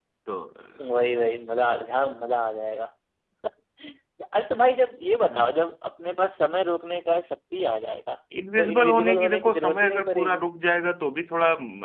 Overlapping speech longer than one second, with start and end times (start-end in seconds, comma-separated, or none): 8.6-10.4